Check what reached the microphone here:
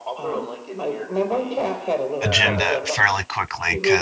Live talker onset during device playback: 2 s

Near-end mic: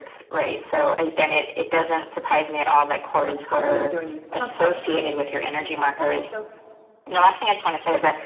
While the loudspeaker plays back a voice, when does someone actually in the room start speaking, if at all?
3 s

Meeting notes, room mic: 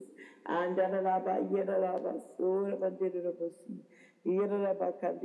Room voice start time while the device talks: none

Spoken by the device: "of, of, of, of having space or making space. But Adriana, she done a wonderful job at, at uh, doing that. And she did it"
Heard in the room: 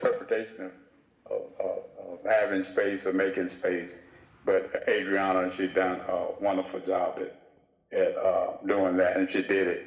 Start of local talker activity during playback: none

